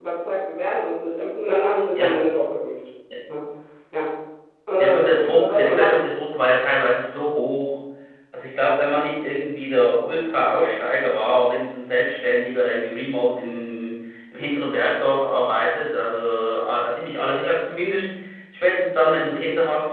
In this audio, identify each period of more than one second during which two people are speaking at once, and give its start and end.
4.8-6.0

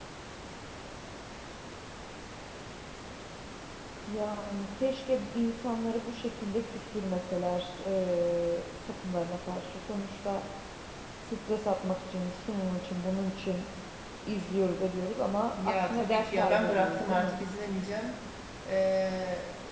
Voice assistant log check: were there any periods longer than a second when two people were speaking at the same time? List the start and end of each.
15.7-17.3

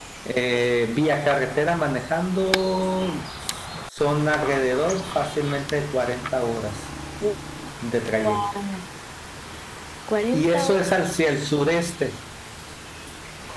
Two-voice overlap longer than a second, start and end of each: none

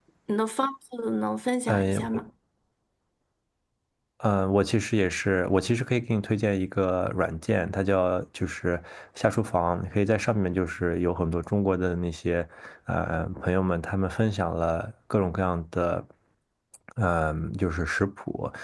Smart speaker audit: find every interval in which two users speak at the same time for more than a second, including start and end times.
none

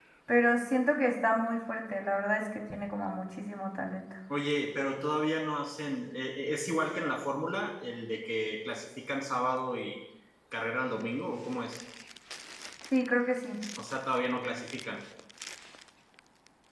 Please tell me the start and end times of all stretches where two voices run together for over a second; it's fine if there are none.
none

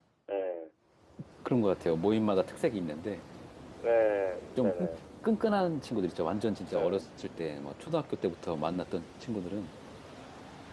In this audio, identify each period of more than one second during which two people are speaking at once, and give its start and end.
none

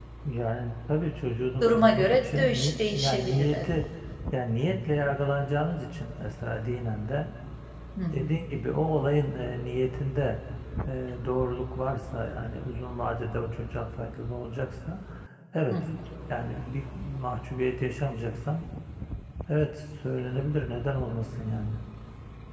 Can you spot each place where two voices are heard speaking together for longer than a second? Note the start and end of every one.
1.6-3.7

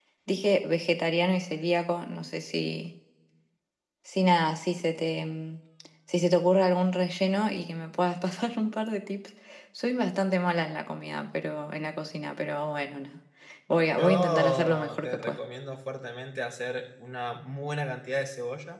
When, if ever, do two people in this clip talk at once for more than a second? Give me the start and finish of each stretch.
14.0-15.4

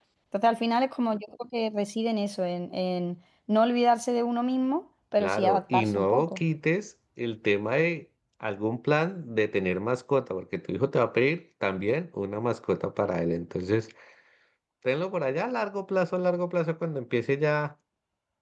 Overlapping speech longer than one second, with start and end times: 5.2-6.4

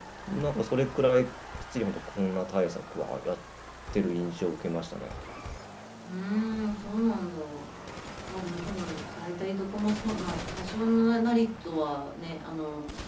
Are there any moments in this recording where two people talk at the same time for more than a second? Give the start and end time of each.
none

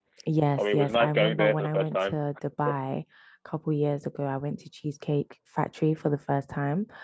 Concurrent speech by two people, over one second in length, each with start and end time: 0.6-2.1

